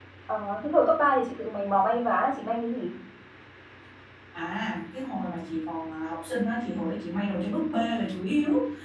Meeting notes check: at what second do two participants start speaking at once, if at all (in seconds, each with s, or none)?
none